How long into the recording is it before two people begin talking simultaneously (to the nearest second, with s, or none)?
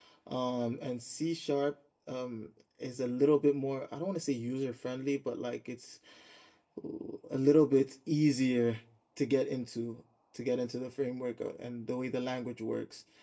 none